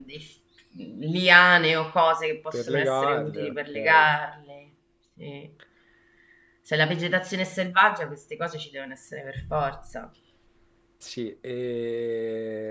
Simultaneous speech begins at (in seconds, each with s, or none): 2.5 s